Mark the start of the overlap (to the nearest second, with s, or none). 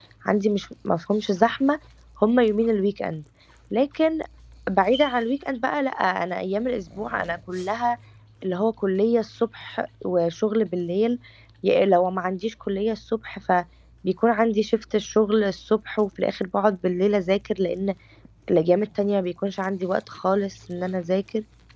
none